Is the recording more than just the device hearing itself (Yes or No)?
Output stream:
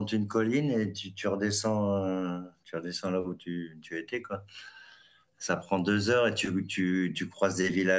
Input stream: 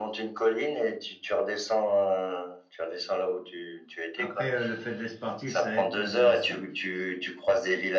Yes